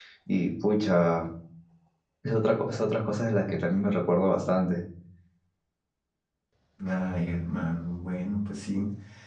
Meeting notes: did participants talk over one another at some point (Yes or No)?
No